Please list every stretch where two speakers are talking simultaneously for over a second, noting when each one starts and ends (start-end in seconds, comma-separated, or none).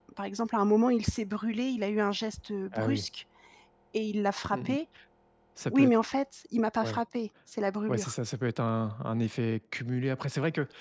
none